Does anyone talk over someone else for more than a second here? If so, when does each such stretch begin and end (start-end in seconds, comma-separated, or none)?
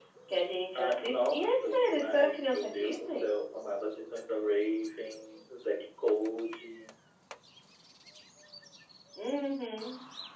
0.8-3.3